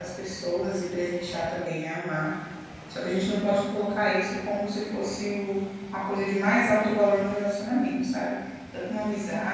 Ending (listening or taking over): listening